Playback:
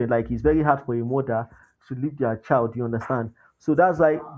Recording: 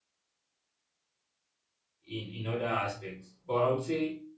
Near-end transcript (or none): in in other aspects. But I would say